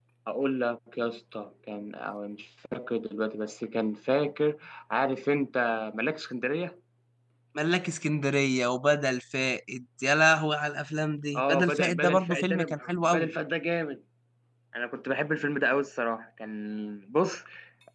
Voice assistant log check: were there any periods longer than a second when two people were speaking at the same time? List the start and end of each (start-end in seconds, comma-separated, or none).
11.3-13.3